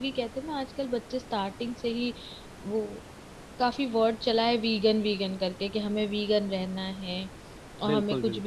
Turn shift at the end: No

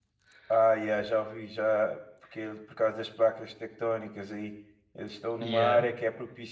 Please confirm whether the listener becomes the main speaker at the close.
No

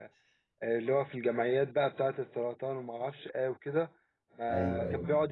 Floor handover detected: No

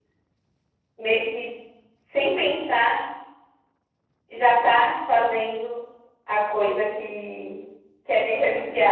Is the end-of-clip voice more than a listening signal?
No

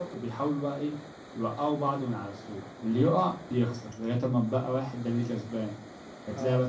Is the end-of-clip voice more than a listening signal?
No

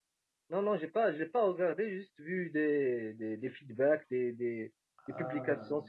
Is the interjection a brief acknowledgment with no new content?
Yes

